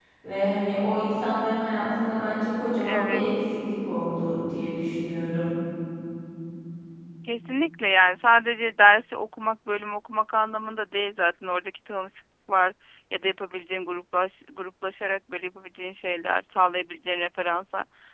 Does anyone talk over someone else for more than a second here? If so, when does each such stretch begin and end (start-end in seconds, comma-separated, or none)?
none